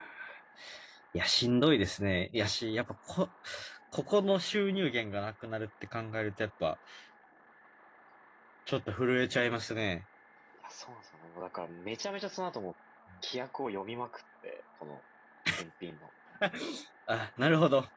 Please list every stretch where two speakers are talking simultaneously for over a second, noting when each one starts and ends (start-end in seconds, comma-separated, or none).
none